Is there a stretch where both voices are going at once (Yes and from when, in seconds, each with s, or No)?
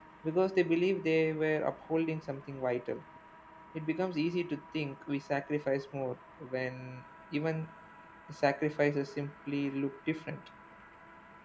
No